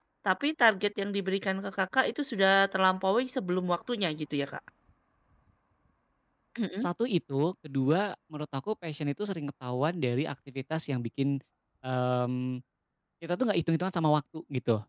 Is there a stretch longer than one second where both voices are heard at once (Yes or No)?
No